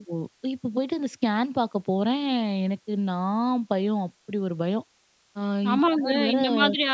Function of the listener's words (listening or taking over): taking over